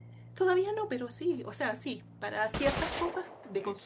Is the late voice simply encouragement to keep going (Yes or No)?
Yes